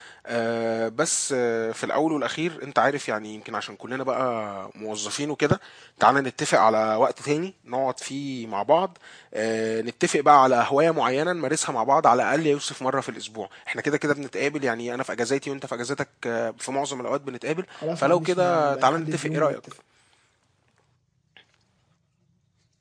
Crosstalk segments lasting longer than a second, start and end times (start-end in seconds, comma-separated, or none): 18.0-19.5